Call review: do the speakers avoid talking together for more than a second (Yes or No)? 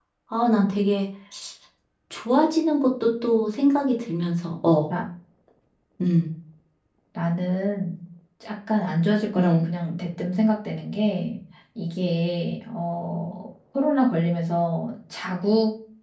Yes